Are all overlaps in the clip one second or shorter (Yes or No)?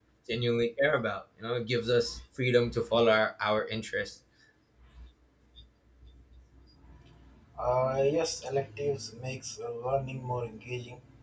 Yes